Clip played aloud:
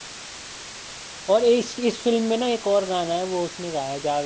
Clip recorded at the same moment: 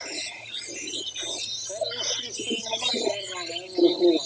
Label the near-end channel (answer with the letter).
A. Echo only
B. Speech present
A